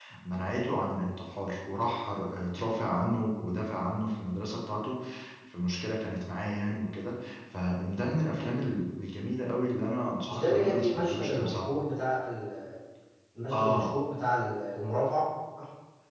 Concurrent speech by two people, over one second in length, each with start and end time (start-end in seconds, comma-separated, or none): 10.2-11.7